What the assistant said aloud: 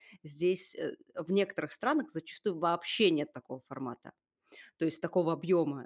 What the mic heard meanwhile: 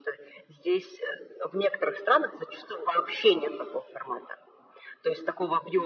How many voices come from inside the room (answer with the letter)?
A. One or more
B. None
B